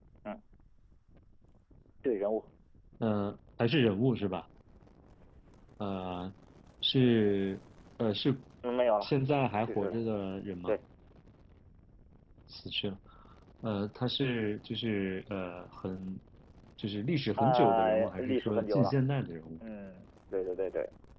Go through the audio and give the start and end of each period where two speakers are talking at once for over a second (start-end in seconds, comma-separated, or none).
17.4-18.9